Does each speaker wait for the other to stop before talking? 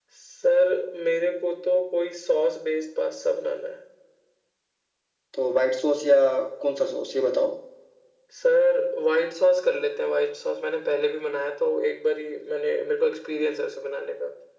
Yes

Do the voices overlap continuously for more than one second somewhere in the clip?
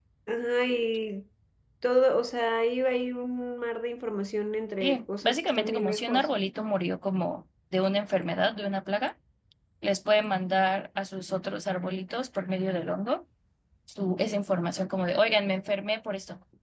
Yes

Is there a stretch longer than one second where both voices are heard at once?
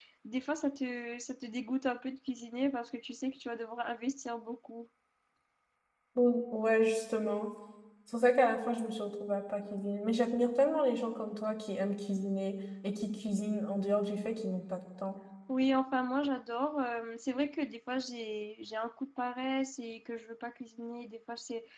No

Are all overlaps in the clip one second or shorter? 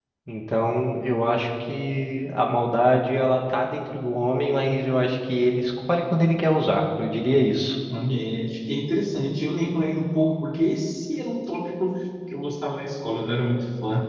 Yes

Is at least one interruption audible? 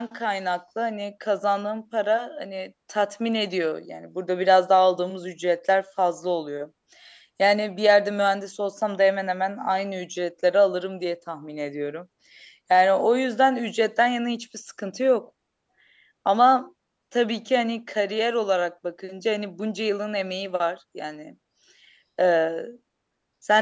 No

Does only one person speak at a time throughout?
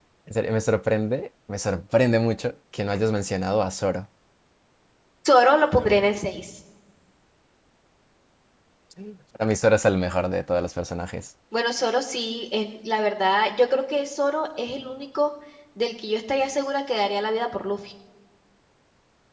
Yes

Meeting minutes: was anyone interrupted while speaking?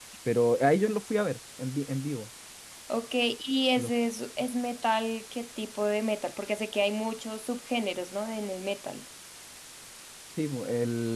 No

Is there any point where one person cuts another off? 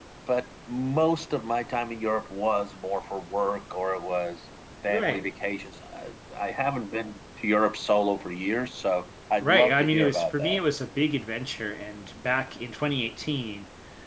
Yes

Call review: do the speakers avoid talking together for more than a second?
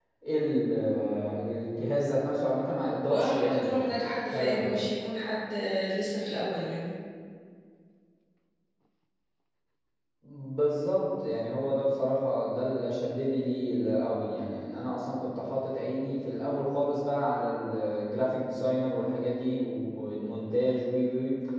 No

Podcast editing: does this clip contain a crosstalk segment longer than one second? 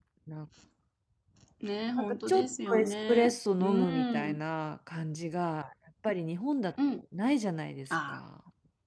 Yes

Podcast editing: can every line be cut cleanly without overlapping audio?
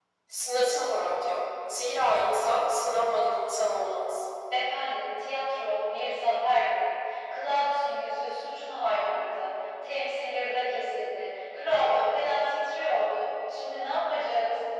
Yes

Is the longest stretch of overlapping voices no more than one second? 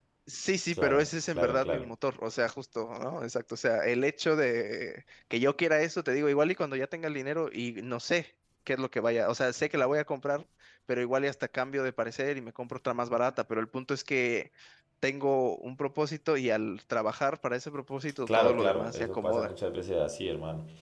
No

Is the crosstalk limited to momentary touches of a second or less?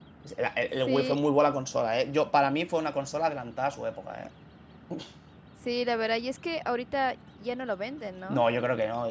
Yes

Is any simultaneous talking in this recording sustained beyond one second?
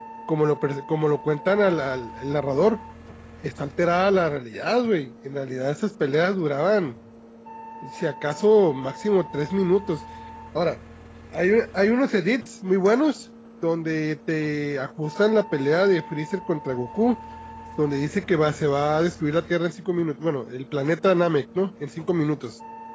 No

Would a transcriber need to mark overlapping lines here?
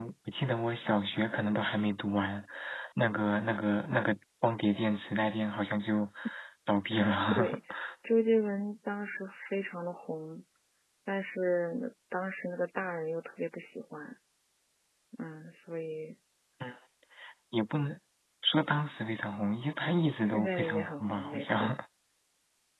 Yes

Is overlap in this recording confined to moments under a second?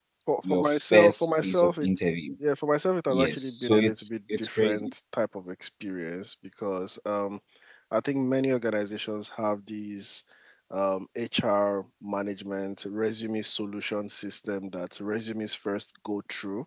No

